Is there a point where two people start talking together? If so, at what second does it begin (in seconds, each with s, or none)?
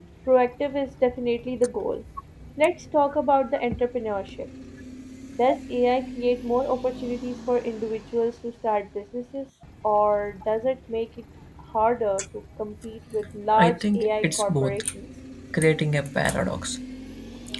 13.5 s